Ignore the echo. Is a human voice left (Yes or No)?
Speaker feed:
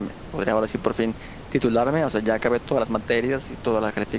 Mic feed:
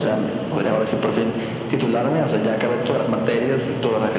No